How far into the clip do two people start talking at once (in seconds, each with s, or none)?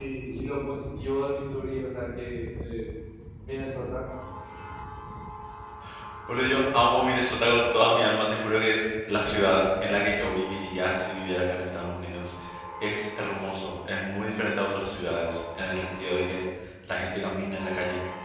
none